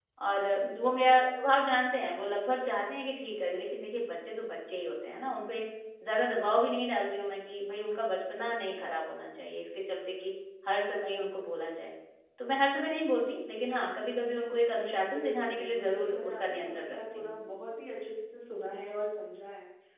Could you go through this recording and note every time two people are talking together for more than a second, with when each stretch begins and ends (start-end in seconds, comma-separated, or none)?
15.1-17.3